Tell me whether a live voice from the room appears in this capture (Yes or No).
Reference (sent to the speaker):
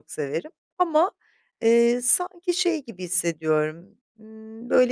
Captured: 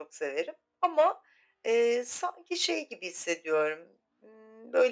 No